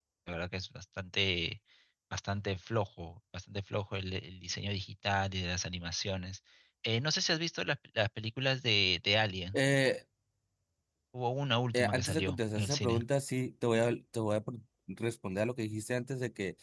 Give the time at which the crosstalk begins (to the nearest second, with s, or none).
12 s